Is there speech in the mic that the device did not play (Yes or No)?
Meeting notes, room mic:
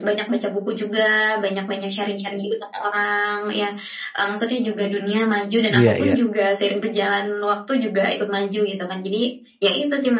Yes